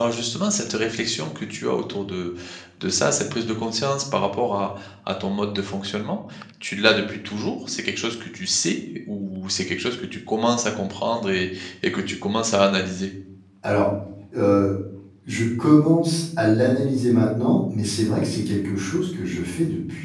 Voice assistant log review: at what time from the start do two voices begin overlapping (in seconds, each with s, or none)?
none